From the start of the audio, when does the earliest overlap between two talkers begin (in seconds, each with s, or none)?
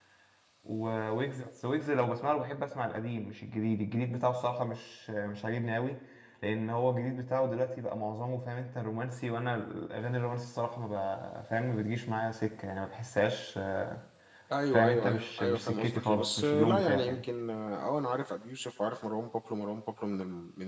14.7 s